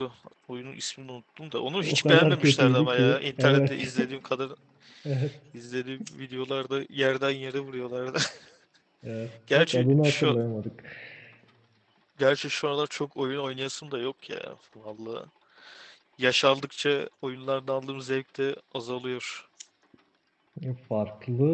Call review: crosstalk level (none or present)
present